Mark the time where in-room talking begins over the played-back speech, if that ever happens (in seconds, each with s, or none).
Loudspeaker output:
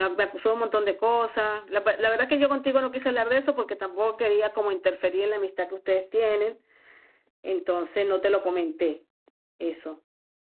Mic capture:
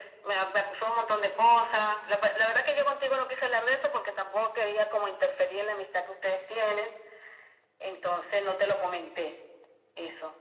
none